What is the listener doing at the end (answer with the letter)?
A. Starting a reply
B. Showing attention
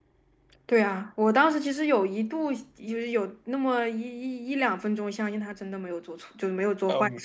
A